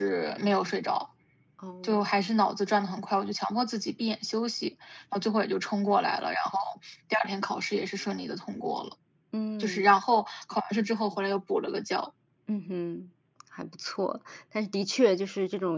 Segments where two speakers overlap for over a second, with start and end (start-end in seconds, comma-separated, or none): none